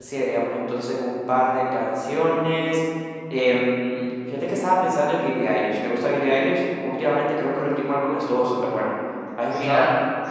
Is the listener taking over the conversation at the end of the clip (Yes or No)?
Yes